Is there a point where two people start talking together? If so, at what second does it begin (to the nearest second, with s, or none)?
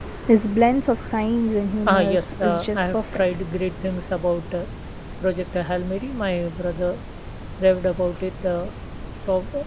2 s